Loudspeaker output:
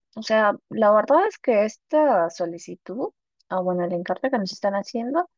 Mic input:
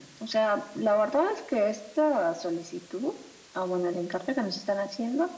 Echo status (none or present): present